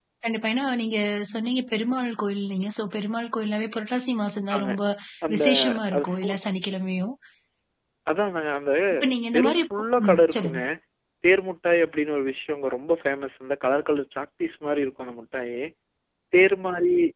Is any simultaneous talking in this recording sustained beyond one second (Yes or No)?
Yes